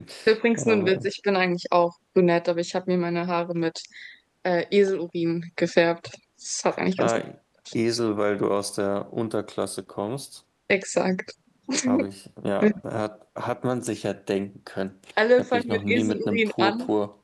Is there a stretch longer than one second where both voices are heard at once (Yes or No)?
Yes